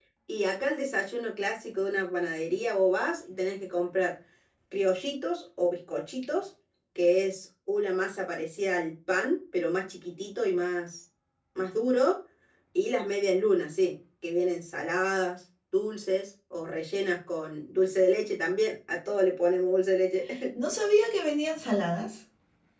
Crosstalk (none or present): none